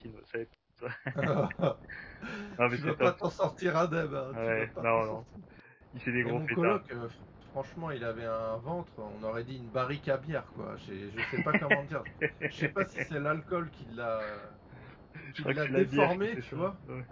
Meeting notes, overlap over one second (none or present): present